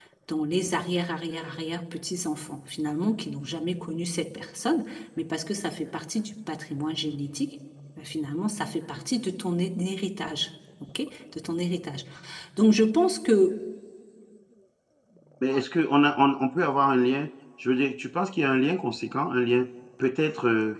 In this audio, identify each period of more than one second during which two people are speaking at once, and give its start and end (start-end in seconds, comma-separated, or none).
none